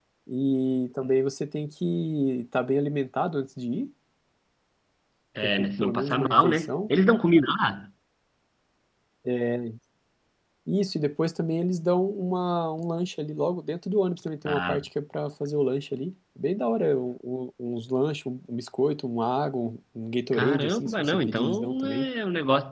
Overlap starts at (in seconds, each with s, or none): 5.4 s